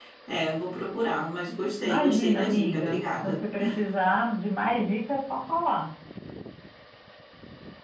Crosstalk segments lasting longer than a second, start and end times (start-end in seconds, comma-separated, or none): 1.8-3.3